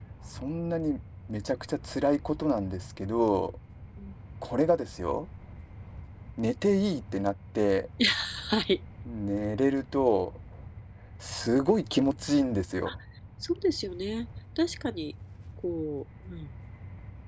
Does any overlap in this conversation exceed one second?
No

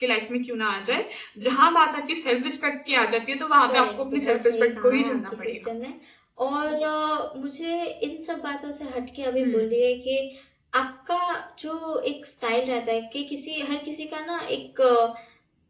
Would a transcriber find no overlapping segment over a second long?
No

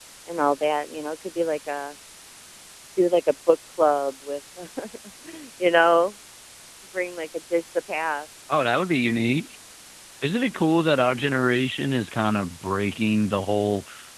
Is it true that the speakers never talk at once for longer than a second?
Yes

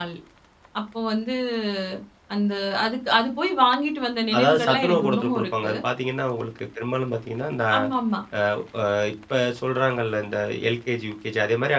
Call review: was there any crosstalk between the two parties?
Yes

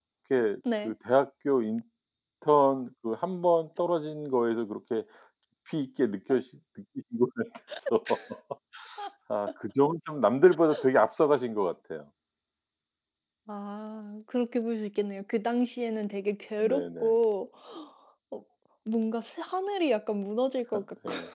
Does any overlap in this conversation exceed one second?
No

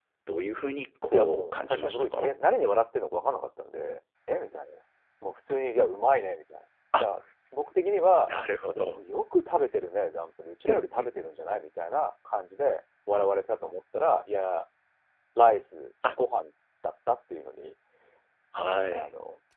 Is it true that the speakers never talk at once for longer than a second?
No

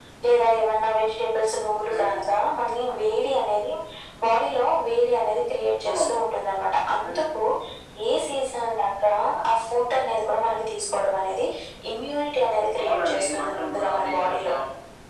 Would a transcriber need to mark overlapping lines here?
Yes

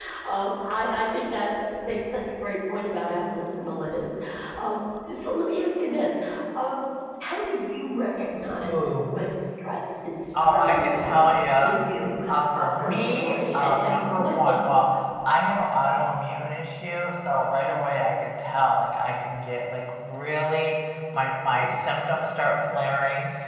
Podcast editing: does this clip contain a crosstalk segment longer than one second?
Yes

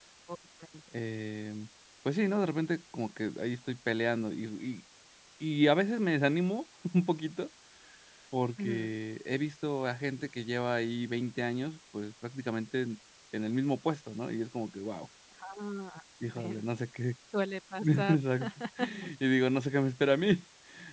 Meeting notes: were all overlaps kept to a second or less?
Yes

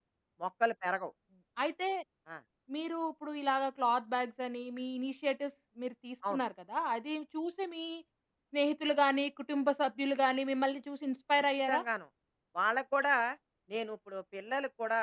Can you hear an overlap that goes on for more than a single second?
No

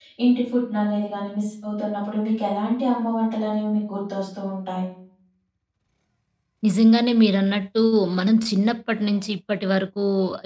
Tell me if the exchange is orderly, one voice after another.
Yes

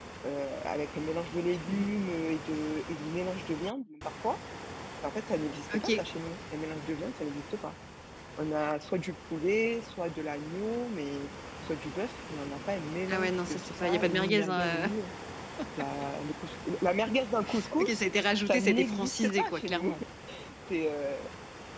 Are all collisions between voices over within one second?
No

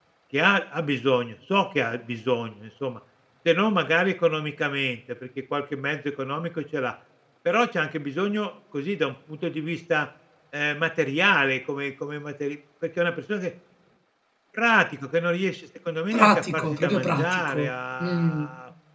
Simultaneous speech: Yes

